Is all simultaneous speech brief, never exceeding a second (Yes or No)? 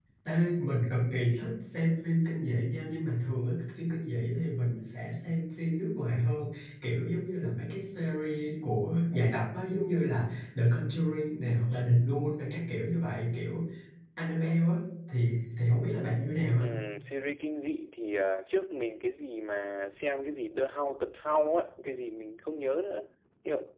Yes